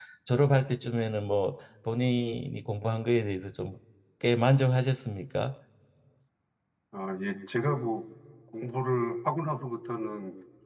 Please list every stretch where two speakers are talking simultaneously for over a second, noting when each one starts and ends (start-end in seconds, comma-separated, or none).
none